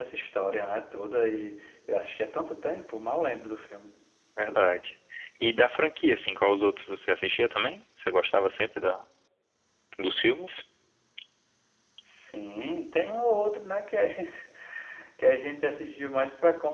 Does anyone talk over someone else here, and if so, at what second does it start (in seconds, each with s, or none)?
none